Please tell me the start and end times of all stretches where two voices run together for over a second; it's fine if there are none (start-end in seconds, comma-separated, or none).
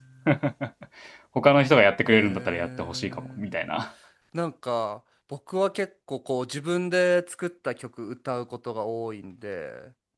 2.0-3.5